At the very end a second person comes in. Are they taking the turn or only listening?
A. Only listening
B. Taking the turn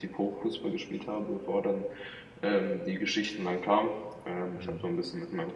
A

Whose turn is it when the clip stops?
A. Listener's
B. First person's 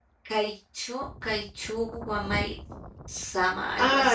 A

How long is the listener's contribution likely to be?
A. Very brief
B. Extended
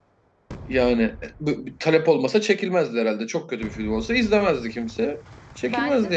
B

